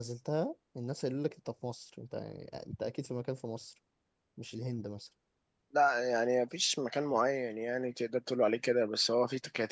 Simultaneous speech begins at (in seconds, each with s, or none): none